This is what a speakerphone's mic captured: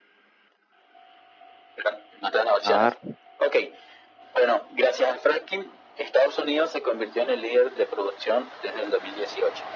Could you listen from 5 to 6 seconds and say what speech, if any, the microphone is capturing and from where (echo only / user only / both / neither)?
echo only